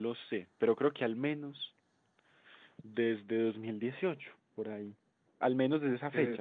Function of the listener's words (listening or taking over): listening